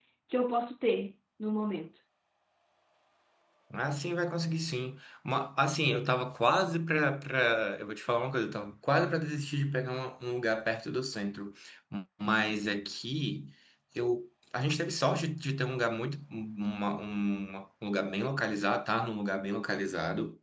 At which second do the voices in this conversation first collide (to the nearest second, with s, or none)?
none